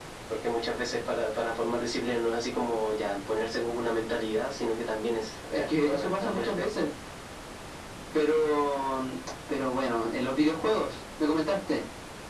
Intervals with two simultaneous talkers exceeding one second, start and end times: 5.5-6.7

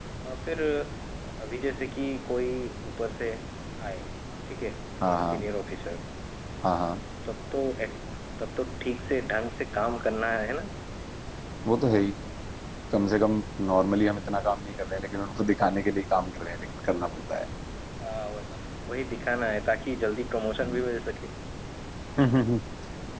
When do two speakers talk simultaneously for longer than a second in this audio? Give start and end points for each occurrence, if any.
none

